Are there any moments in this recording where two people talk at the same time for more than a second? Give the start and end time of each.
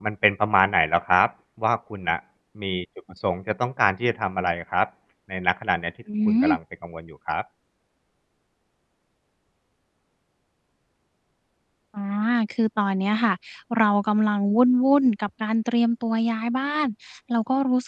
none

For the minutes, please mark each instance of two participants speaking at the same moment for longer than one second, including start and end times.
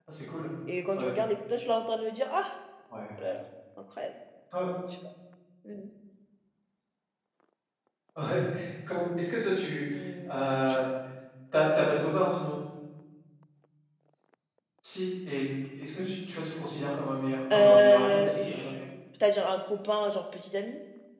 17.5-18.8

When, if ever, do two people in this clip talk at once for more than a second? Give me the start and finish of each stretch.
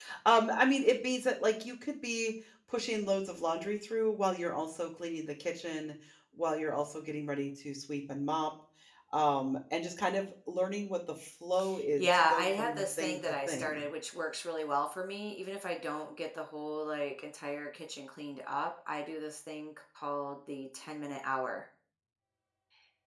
12.0-13.8

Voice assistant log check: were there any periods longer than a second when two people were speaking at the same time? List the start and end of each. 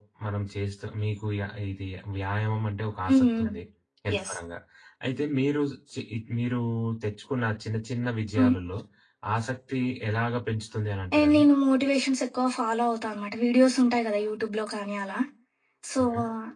none

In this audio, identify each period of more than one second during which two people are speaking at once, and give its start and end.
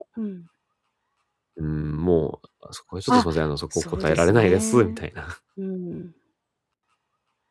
3.8-5.0

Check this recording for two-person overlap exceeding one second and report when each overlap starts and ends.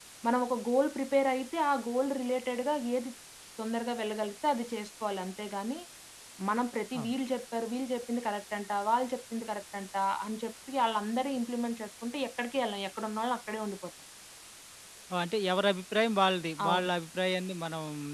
none

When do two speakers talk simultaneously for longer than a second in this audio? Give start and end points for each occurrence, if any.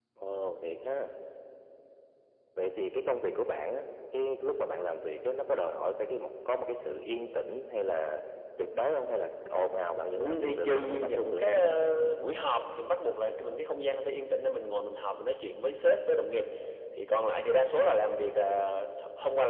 10.2-11.4

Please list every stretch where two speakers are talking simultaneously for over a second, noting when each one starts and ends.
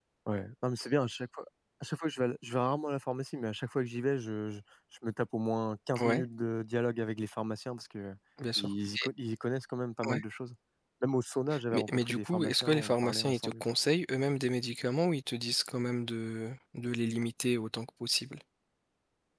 11.7-13.6

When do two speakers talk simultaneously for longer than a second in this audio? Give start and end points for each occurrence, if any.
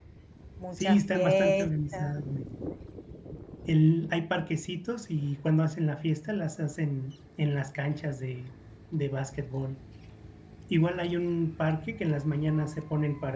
0.8-2.1

